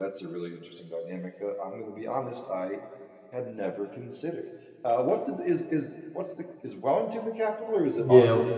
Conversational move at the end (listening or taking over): taking over